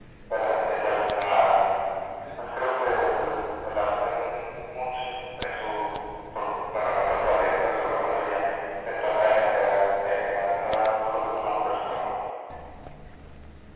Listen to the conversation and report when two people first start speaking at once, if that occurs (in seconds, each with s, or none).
none